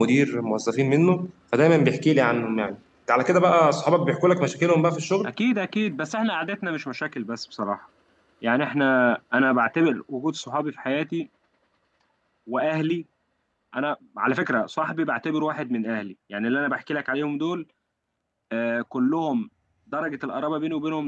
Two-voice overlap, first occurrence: none

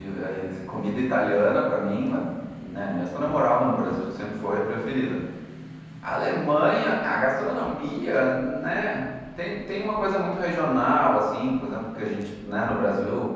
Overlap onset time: none

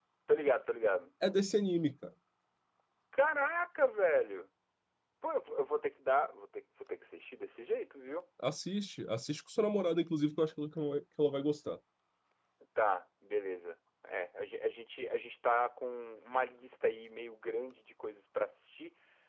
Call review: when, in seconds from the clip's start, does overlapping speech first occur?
none

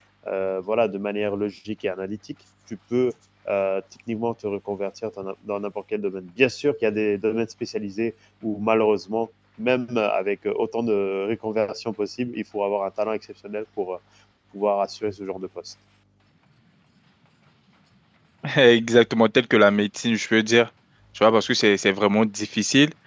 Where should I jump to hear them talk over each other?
none

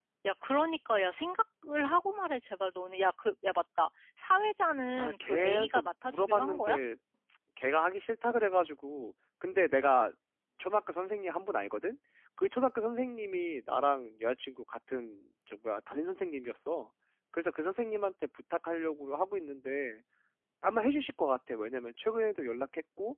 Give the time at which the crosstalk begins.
5.0 s

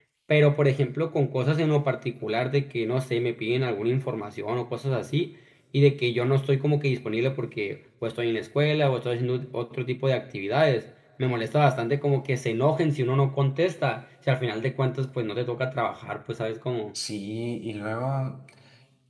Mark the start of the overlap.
none

